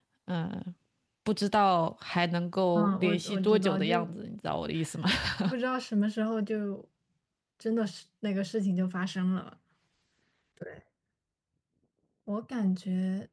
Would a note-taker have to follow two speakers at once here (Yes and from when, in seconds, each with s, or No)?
Yes, from 2.8 s